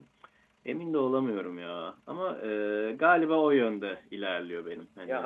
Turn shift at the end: Yes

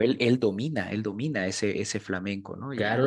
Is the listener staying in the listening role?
No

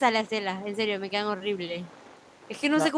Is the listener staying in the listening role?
Yes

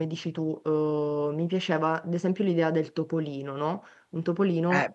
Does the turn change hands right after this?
Yes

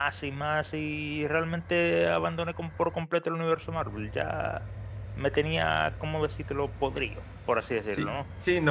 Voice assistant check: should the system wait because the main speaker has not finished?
No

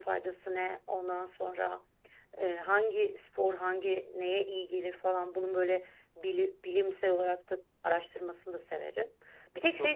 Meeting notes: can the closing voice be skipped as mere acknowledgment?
Yes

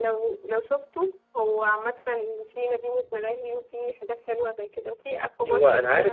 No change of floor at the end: No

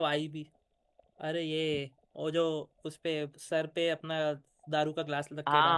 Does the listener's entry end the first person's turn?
Yes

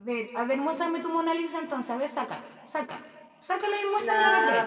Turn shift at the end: Yes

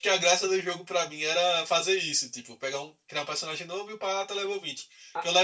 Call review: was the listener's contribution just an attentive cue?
Yes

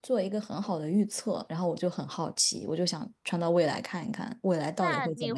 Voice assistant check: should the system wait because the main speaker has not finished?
No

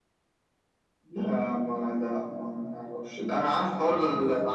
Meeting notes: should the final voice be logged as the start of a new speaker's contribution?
No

